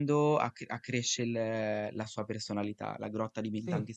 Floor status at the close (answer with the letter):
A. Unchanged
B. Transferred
A